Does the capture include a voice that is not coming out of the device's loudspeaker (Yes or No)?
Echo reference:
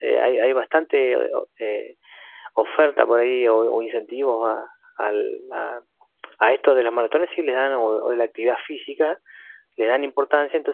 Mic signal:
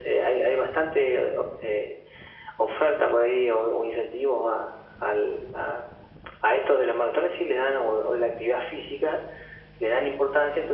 No